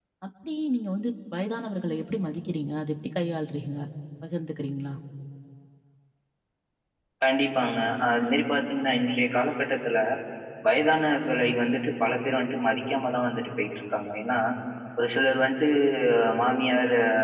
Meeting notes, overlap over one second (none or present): none